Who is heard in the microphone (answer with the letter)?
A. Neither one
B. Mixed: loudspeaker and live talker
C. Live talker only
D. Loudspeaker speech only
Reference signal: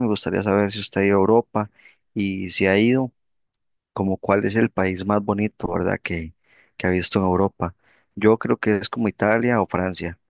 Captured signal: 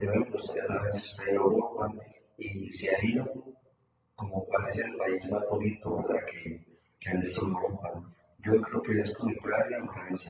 D